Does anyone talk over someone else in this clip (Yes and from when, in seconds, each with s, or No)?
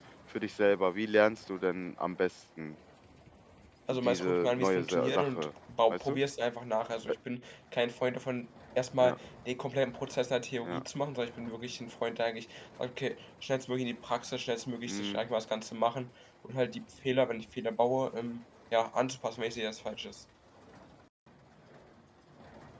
Yes, from 3.9 s